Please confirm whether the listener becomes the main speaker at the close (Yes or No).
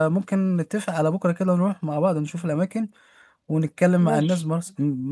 No